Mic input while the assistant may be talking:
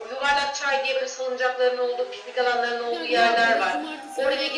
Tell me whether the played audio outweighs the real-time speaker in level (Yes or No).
Yes